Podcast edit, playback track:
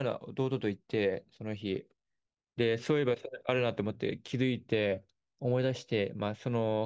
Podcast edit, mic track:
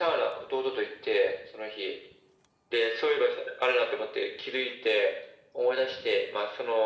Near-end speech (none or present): none